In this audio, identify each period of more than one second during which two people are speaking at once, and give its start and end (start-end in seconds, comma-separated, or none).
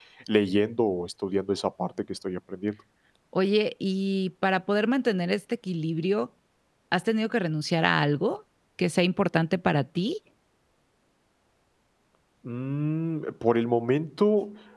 none